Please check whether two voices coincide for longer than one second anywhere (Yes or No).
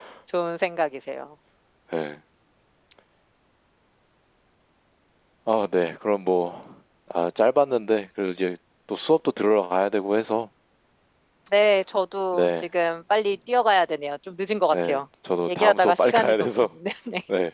Yes